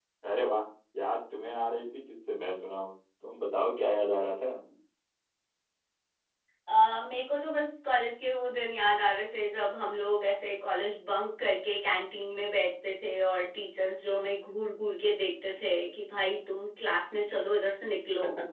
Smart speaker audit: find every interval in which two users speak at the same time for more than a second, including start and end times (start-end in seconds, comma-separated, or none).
none